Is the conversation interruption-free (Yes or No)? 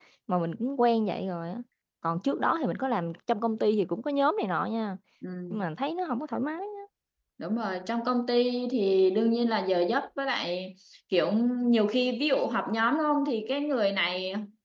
Yes